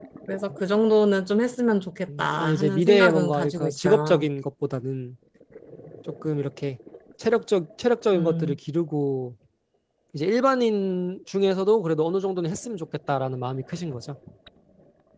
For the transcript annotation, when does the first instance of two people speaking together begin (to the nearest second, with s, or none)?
2 s